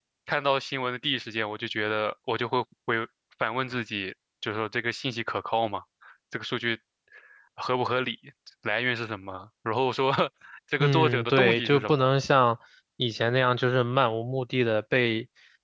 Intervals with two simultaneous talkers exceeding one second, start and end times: 10.8-12.1

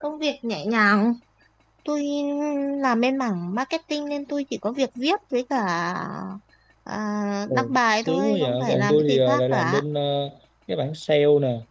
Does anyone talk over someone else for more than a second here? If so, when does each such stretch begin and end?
8.0-9.8

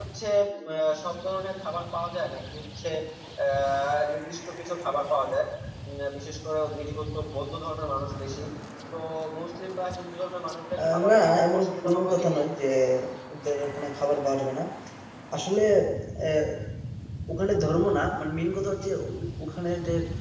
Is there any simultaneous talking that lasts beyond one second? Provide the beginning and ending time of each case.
10.8-12.4

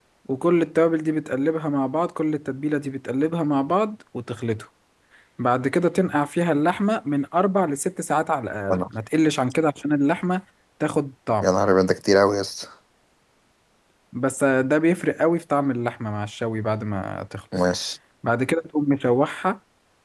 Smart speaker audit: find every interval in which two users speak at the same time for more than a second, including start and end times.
none

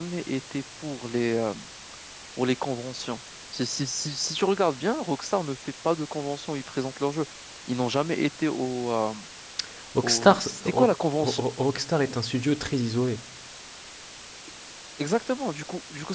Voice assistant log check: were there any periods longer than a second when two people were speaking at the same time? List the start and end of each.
10.0-11.4

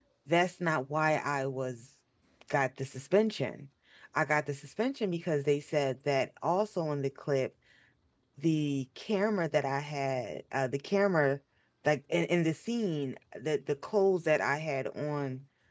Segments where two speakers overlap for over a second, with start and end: none

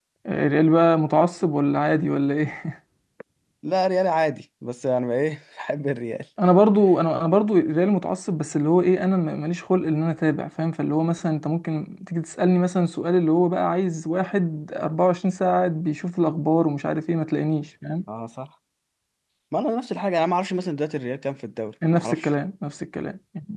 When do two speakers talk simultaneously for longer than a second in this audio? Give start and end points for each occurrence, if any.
none

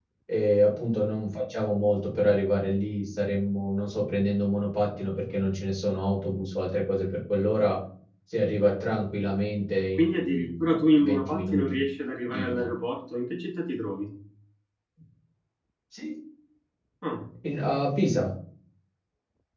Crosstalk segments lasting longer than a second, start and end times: 10.0-11.8

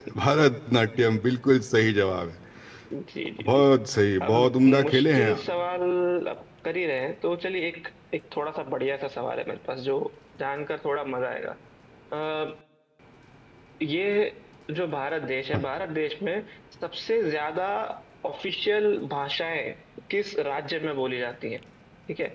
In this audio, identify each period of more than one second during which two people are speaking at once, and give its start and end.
4.2-5.4

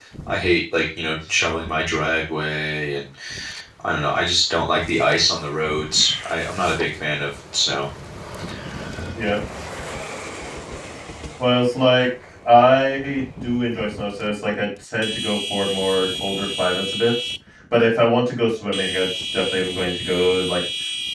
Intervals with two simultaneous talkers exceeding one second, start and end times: none

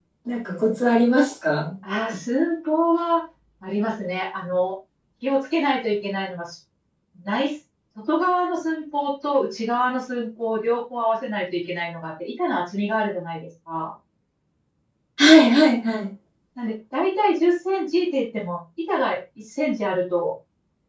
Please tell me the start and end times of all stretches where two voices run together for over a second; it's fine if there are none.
none

